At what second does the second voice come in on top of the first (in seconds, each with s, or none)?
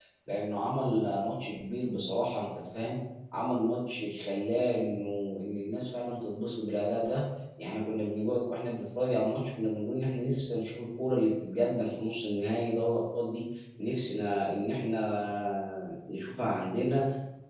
none